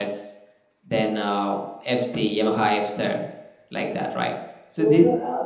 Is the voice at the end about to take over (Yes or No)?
Yes